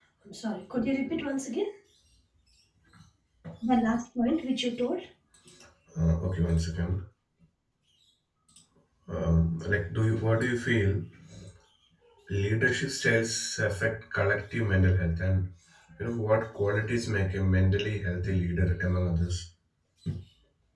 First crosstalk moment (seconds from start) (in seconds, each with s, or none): none